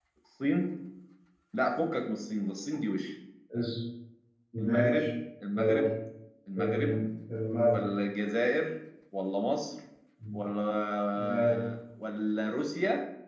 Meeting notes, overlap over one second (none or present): none